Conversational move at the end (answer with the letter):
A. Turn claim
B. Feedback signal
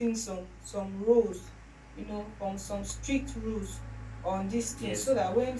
B